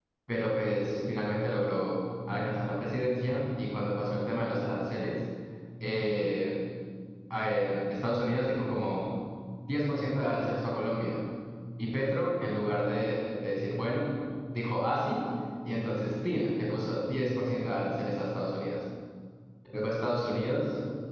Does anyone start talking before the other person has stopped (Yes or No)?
No